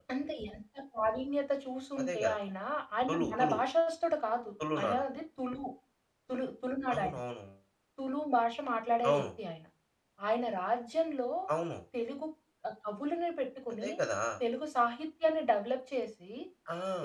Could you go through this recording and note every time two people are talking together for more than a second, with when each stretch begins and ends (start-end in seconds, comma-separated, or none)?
none